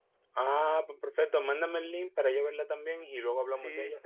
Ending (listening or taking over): taking over